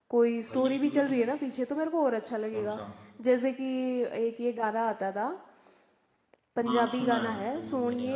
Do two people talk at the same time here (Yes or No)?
Yes